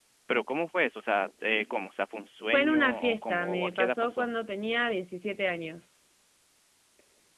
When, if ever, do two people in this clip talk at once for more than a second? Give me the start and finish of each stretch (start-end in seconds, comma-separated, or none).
2.5-4.2